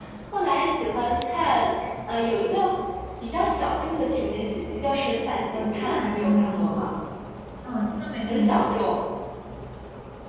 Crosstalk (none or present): present